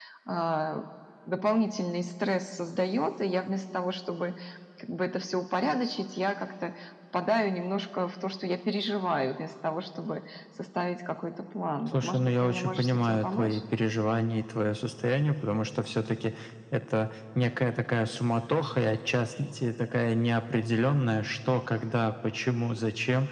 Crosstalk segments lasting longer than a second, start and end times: 11.9-13.6

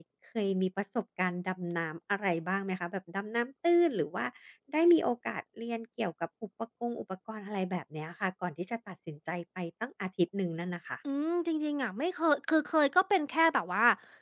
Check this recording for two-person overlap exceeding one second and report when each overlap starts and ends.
none

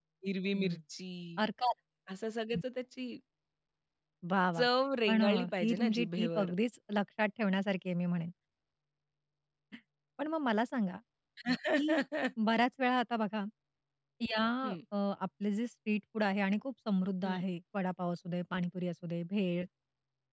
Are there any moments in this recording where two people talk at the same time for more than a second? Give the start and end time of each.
5.1-6.5

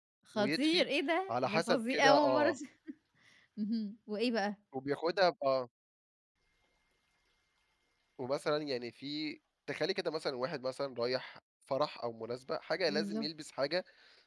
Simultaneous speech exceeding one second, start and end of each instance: 1.3-2.5

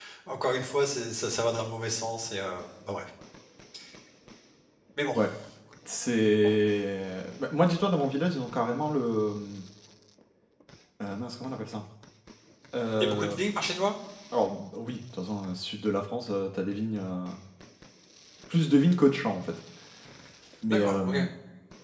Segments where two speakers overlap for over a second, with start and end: none

